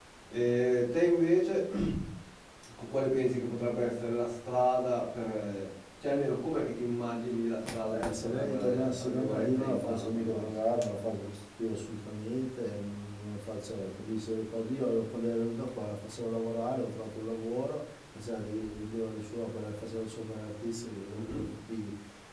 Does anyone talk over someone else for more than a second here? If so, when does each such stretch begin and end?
7.9-10.5

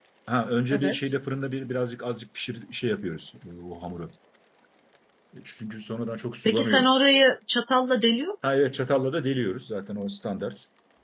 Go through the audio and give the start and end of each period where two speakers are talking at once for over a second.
none

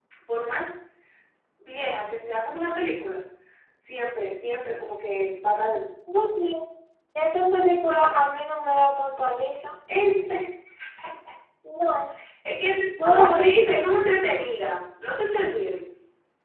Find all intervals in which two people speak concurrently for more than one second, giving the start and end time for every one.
none

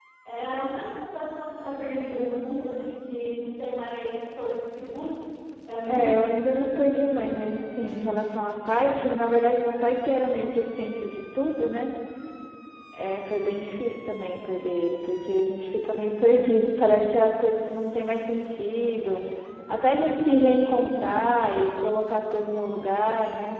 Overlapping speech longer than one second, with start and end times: 5.9-7.7

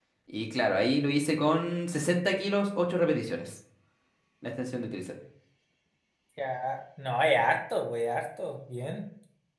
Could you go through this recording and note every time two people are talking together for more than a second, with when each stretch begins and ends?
none

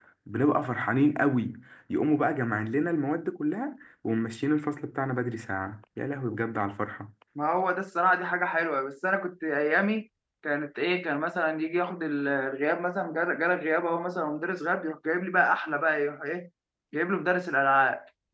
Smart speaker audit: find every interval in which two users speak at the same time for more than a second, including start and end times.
none

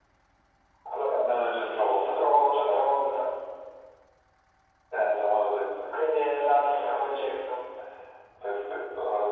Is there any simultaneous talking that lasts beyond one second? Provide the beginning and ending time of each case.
1.1-3.0

